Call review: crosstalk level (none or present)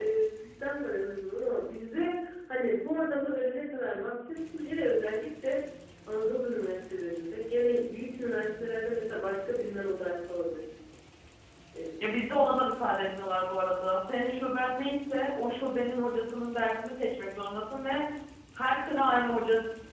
none